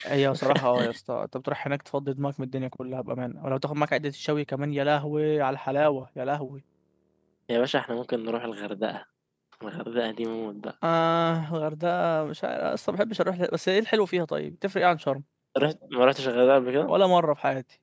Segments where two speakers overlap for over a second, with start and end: none

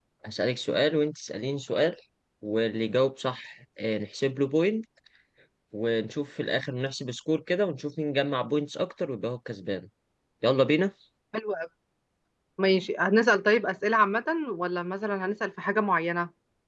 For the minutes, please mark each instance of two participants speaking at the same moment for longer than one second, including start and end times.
none

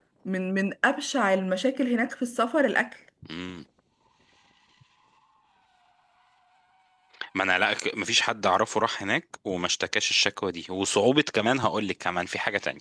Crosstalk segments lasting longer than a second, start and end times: none

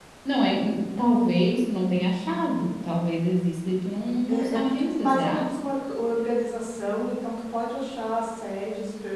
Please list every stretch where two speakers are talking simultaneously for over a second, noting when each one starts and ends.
4.3-5.5

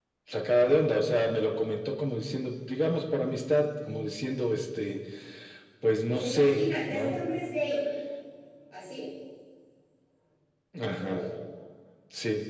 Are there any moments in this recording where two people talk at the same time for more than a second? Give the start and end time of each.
6.1-7.3

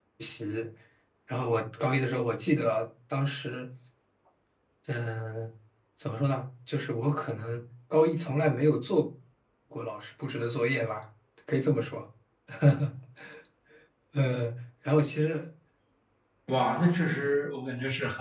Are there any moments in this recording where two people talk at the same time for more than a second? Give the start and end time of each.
none

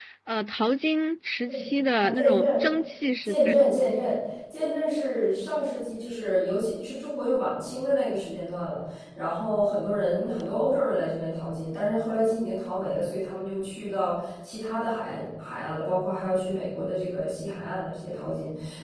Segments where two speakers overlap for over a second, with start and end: none

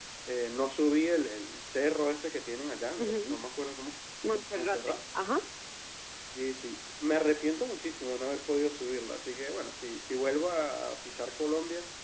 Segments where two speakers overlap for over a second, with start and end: none

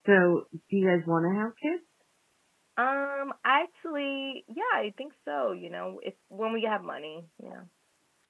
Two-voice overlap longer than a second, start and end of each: none

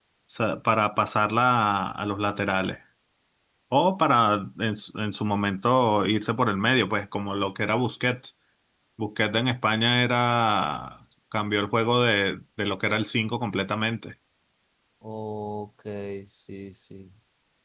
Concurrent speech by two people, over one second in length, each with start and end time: none

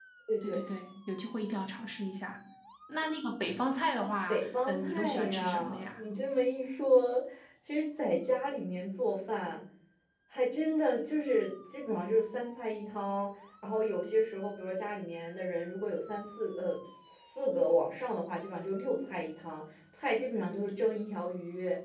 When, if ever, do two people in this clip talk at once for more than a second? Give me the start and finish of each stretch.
4.3-6.0

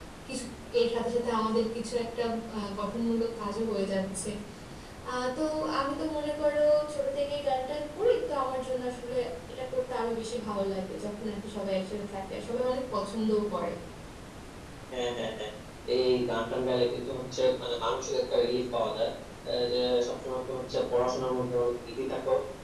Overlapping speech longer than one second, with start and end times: none

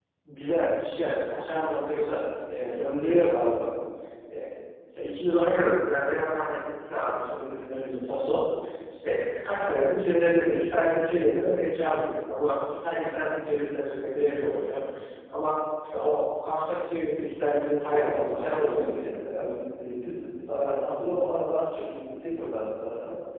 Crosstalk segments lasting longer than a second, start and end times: 17.8-19.1

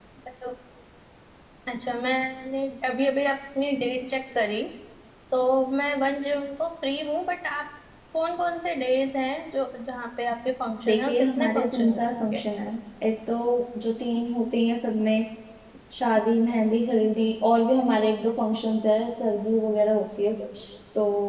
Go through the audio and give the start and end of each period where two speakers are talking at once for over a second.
10.8-12.4

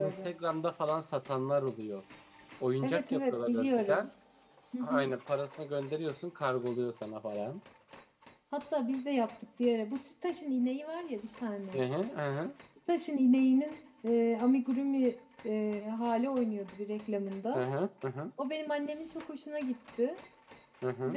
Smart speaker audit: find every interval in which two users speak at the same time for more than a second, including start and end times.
2.8-4.1

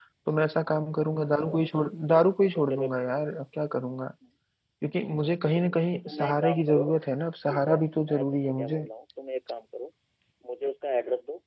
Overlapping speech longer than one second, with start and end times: 5.4-6.8, 7.5-8.9

